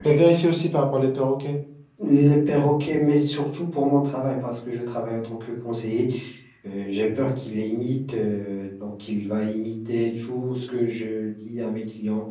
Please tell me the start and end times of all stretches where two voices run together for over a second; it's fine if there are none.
none

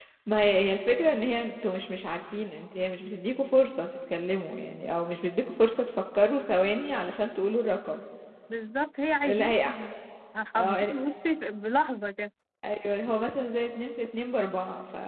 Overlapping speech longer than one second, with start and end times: none

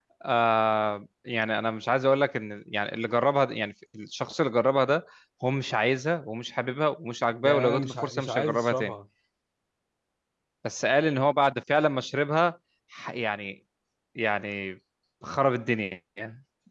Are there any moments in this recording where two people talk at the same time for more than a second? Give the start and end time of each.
7.4-8.9

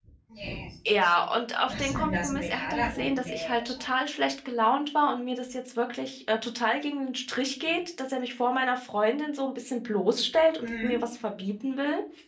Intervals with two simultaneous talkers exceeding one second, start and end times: 1.7-3.9

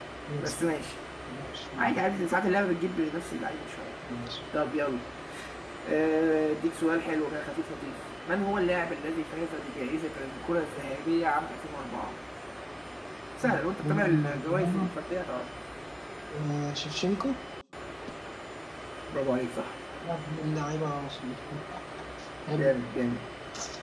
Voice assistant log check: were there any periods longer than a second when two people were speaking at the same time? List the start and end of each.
13.4-14.9

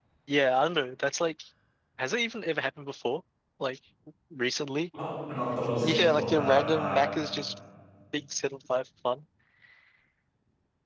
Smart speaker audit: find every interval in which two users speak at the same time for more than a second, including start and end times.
5.8-7.0

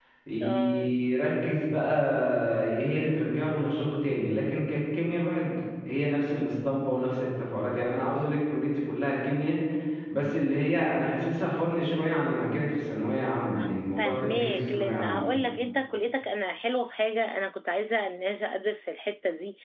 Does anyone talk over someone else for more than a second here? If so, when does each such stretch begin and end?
14.0-15.3

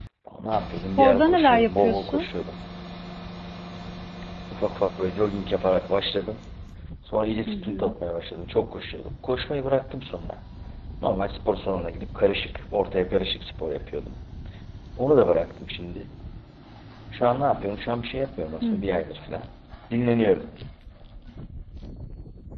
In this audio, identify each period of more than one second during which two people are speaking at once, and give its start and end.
1.0-2.2

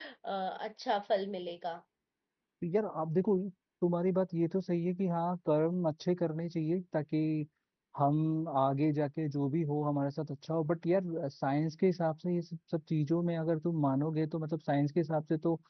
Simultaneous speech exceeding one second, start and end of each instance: none

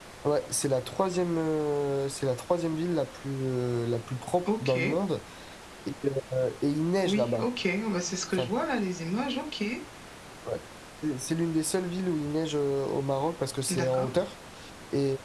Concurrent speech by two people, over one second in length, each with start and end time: none

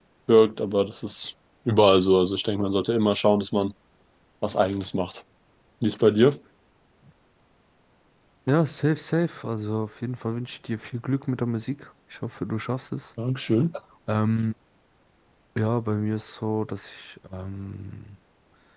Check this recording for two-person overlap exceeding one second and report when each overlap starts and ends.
none

